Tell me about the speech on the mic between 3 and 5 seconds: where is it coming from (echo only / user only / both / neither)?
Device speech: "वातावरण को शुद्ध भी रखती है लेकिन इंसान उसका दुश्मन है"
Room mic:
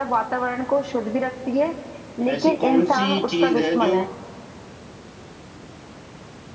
both